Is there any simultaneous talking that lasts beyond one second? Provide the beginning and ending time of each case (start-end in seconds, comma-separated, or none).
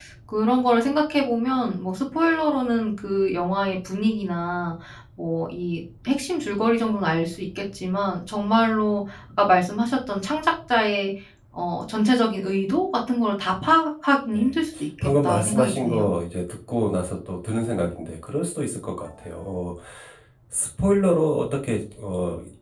14.3-16.1